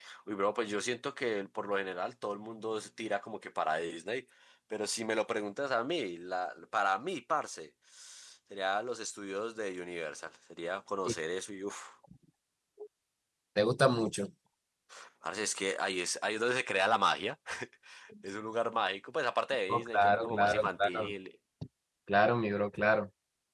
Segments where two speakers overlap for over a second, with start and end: 19.7-21.1

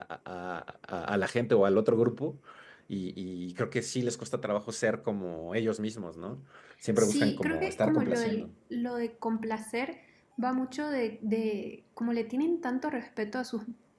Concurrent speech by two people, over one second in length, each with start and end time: 7.0-8.5

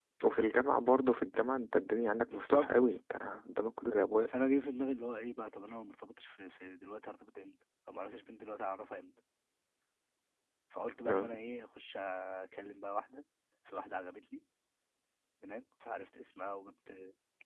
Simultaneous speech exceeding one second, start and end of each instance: none

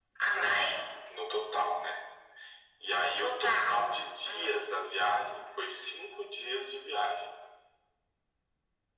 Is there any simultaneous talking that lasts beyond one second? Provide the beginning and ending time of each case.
2.9-4.8

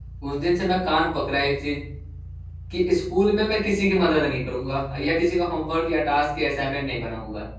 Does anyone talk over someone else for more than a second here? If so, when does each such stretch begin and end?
none

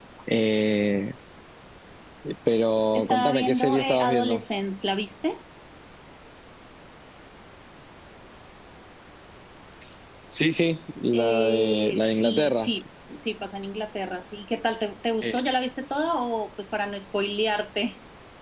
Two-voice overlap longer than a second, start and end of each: 2.9-4.4, 11.1-12.7

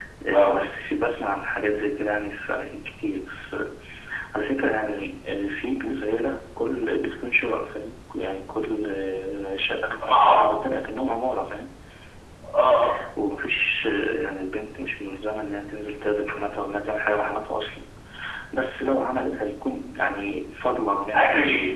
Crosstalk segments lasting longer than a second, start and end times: none

